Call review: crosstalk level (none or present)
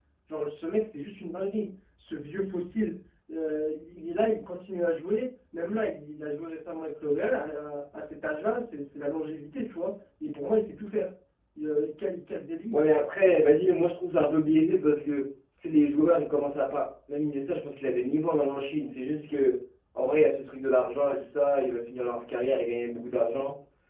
none